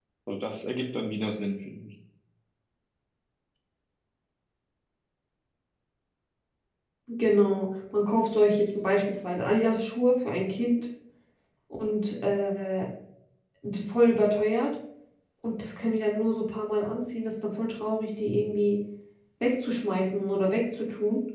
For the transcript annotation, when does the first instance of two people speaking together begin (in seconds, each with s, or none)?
none